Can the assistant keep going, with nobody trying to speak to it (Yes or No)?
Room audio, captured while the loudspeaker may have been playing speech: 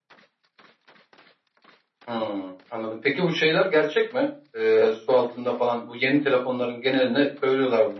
Yes